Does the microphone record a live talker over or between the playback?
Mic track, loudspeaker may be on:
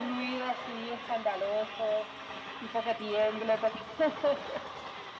No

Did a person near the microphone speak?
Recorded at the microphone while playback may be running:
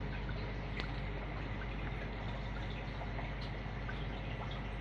No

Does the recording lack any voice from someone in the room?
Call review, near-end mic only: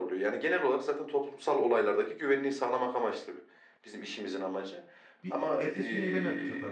No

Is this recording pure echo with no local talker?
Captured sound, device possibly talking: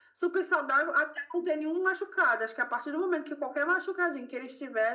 Yes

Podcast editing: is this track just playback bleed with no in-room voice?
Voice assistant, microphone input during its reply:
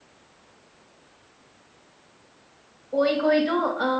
No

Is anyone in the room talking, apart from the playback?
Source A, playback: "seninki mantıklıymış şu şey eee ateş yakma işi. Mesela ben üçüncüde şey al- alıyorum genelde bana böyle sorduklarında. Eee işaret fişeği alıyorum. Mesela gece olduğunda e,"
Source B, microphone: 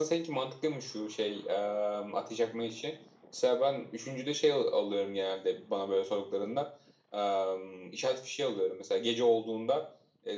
No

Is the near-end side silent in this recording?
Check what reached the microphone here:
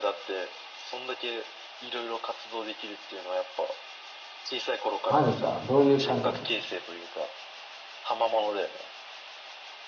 No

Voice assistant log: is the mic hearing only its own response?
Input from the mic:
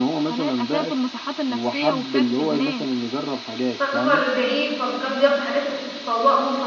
No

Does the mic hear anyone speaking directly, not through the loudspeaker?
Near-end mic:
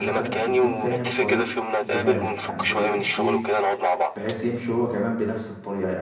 Yes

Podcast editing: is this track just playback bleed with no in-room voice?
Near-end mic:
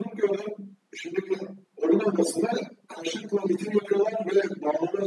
Yes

